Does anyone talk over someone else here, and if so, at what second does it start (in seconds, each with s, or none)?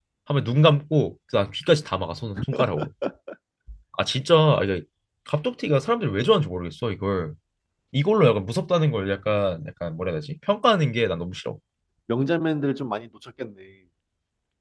none